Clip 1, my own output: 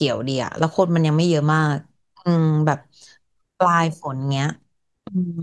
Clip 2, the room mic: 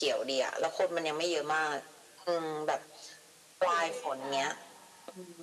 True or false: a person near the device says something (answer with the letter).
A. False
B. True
B